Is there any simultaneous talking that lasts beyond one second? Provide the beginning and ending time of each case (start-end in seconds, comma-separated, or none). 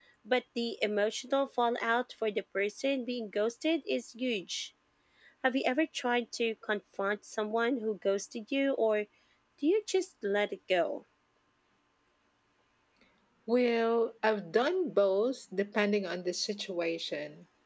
none